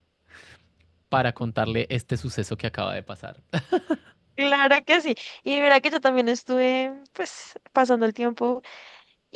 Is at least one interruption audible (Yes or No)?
No